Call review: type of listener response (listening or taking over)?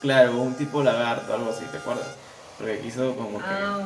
taking over